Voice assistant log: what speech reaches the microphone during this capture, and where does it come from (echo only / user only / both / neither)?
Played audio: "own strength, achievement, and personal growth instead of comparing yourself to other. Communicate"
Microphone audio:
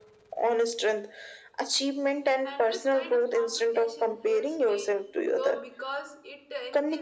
both